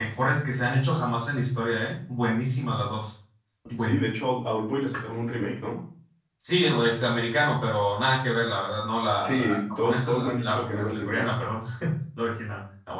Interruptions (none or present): present